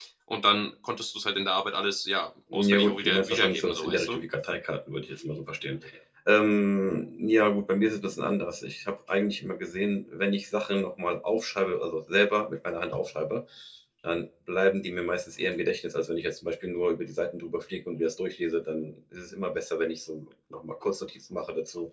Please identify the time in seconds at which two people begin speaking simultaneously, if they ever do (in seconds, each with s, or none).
2.5 s